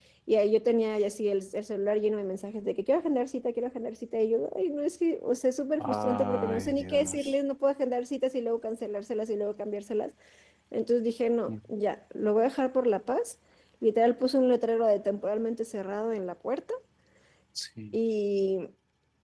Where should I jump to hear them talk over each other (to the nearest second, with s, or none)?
6 s